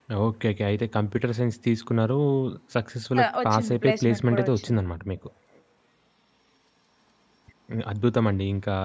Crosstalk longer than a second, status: present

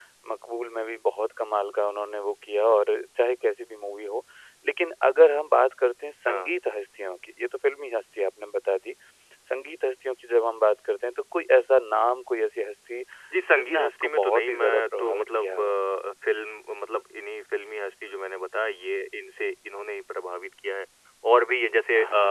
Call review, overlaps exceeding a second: present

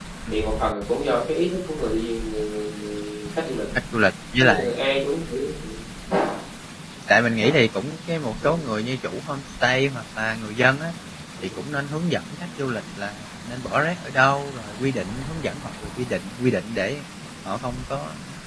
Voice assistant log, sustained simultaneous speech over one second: none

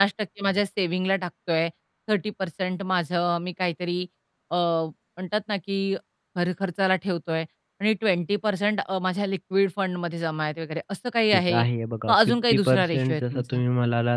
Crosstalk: present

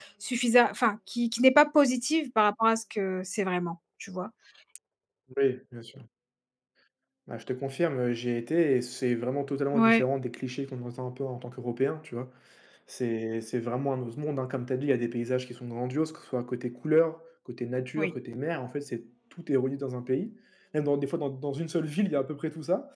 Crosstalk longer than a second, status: none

